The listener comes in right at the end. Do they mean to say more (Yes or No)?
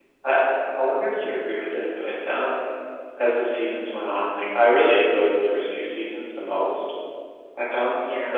No